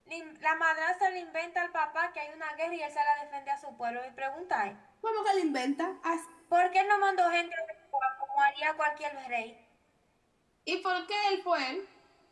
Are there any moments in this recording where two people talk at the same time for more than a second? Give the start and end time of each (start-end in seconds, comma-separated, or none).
none